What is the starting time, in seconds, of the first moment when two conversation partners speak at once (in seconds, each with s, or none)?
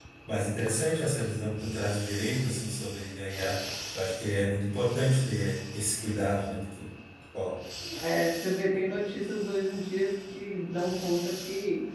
none